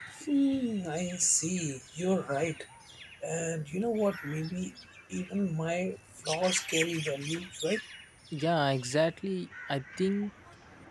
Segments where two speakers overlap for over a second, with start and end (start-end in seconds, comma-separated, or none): none